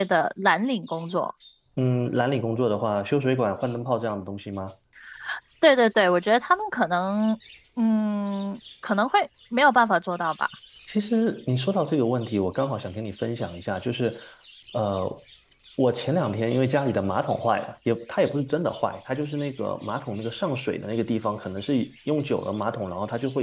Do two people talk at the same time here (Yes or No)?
No